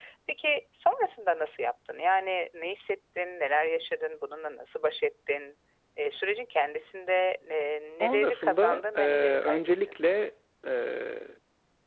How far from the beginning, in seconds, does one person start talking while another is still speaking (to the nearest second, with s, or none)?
8 s